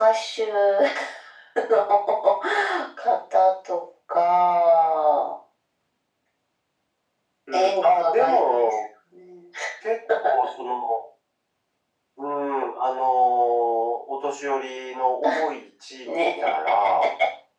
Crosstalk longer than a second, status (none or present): present